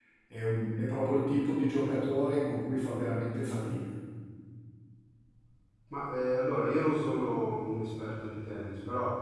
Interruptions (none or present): none